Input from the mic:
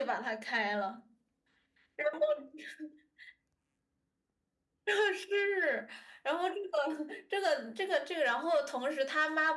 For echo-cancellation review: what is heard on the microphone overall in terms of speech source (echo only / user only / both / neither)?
echo only